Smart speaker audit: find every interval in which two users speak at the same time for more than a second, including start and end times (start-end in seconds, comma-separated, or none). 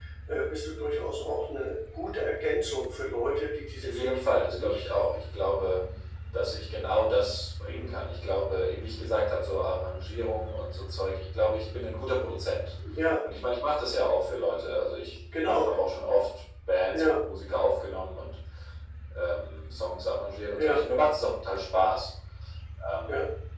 3.8-5.0